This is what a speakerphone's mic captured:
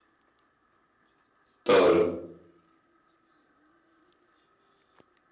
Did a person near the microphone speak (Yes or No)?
Yes